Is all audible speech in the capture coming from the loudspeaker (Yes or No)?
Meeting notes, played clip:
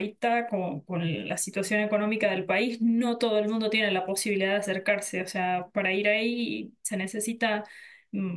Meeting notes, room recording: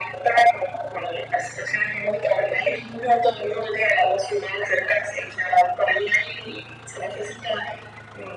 Yes